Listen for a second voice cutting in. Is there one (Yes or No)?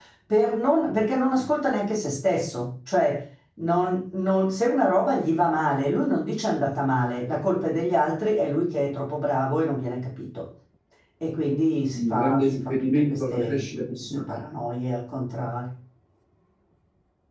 Yes